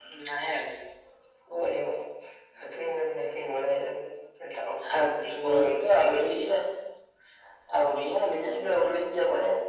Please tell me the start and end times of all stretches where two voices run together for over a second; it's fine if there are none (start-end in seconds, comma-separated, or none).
5.0-6.3